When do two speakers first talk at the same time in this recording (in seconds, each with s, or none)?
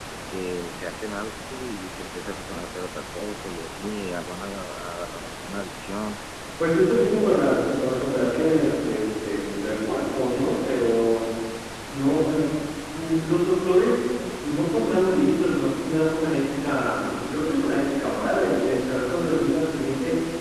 7.2 s